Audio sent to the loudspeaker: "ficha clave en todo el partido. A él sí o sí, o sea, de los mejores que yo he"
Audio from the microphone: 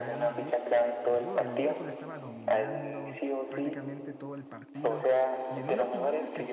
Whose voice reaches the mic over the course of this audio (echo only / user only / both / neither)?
both